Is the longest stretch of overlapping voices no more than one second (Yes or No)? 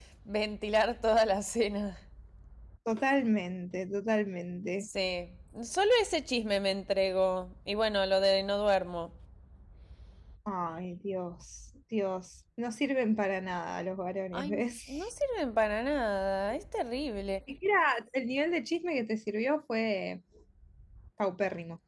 Yes